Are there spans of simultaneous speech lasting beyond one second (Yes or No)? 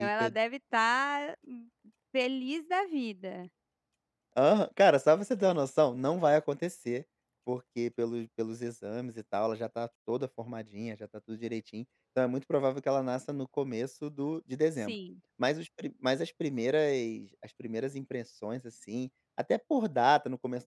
No